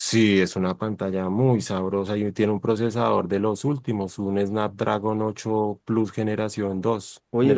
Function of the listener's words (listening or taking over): taking over